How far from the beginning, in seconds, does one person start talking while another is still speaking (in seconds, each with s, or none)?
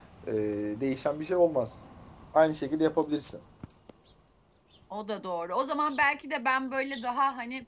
none